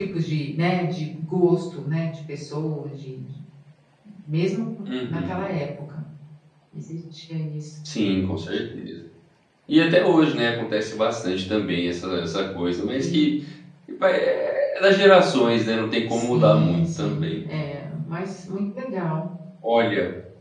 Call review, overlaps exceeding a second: present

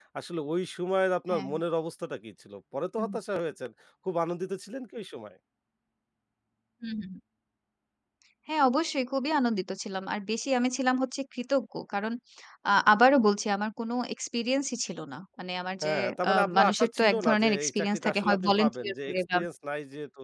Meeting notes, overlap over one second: present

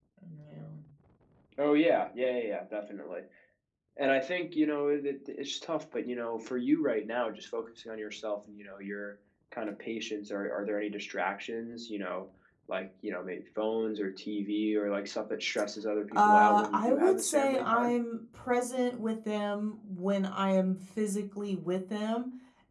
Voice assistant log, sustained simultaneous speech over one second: present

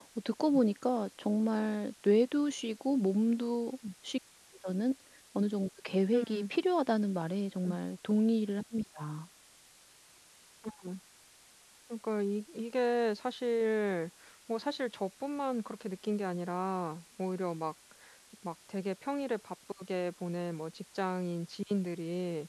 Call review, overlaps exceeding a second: none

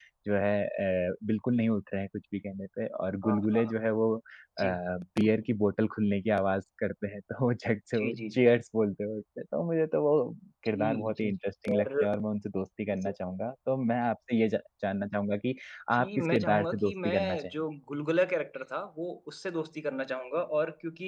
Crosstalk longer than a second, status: present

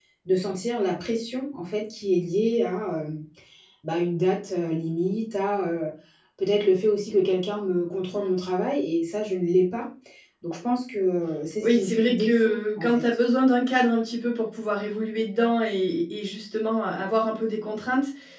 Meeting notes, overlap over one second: present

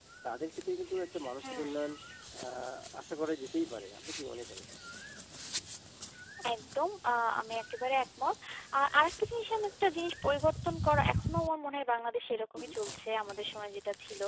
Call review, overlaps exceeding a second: none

